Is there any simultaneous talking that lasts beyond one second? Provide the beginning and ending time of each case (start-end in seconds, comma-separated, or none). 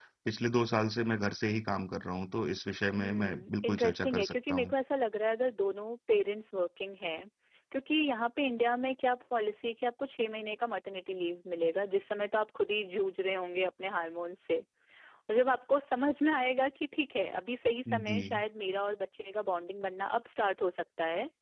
3.0-4.7